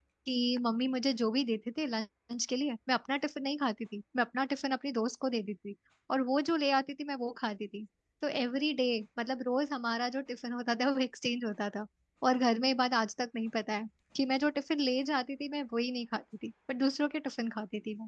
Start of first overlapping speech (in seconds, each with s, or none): none